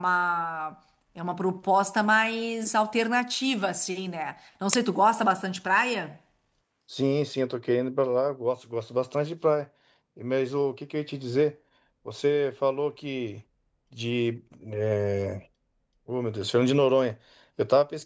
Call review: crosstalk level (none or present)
none